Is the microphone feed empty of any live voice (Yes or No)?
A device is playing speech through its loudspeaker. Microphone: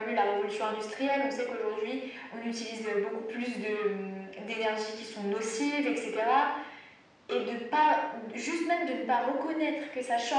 Yes